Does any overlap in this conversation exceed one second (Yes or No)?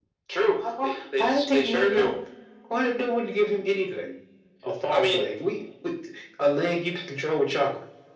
Yes